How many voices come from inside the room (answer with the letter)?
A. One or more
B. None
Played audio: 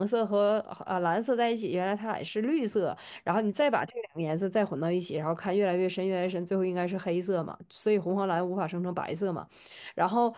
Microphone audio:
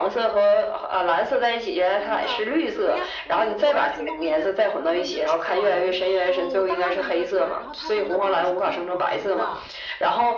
A